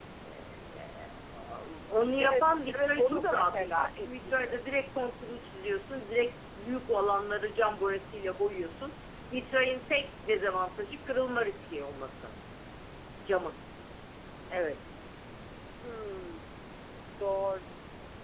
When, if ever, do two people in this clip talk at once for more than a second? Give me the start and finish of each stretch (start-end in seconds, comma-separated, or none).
2.2-4.6